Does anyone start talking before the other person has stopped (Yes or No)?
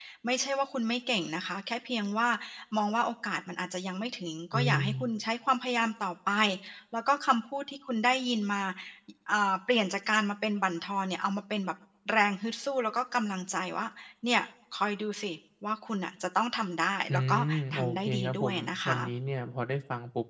Yes